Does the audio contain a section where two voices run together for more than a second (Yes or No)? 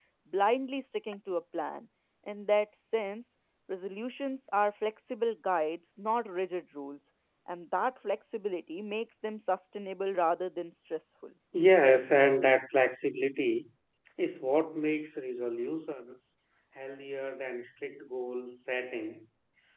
No